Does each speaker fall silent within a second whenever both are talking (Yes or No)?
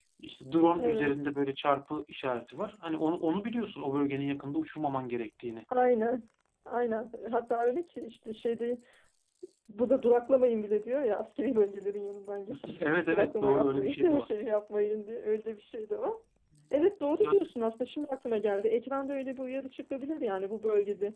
No